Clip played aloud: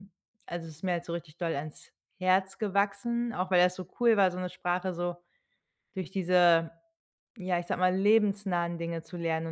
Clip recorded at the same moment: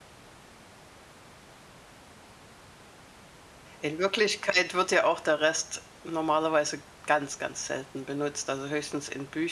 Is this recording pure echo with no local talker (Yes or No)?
No